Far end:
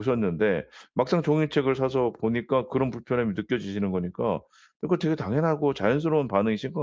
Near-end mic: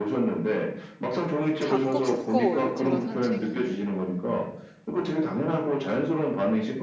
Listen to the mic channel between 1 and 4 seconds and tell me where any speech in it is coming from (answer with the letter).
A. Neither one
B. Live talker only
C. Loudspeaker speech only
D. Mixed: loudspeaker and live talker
D